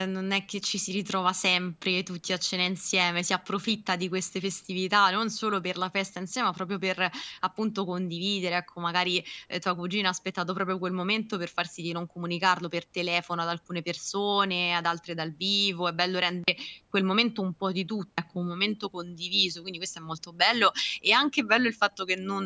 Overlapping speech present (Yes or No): No